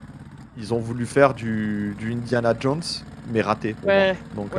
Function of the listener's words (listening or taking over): taking over